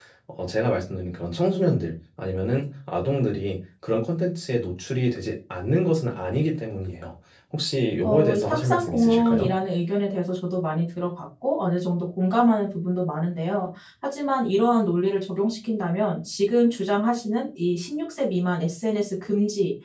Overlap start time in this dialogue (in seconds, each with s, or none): 8.0 s